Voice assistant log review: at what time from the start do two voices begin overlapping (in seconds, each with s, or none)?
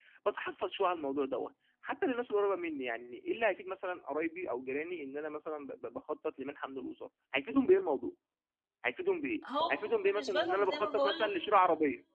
9.7 s